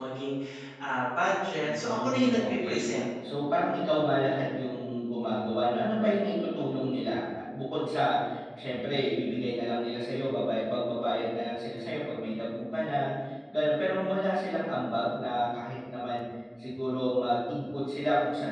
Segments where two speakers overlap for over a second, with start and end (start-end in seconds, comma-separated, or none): 1.6-2.9